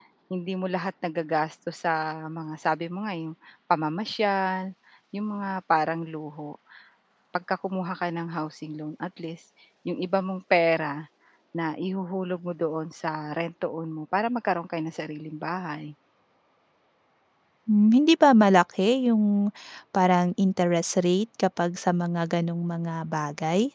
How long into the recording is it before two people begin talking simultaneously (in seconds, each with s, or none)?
none